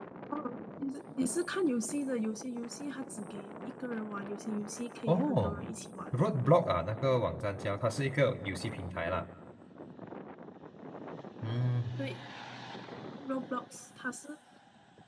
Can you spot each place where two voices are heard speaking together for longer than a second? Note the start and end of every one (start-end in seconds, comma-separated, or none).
none